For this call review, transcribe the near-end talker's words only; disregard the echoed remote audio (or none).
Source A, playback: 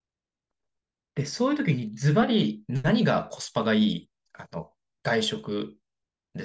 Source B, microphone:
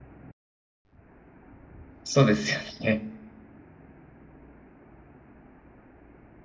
そうですよね。